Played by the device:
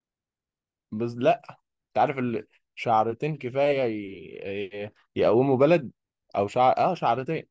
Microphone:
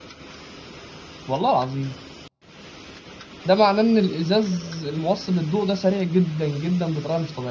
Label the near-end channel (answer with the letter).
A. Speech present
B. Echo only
A